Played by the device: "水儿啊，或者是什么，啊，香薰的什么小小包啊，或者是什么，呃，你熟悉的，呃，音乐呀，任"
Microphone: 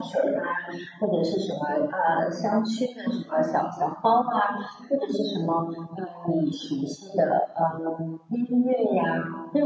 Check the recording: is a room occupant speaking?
No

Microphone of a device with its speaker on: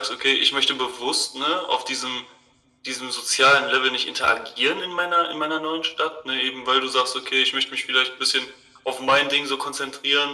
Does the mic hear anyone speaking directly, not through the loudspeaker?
No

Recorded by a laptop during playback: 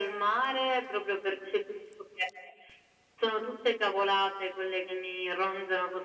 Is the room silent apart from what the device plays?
Yes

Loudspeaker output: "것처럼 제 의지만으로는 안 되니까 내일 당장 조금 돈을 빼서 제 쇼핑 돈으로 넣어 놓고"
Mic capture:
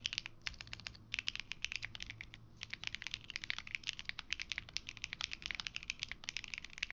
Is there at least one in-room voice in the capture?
No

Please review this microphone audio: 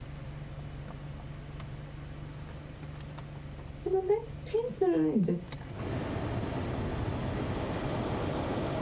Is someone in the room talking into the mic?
Yes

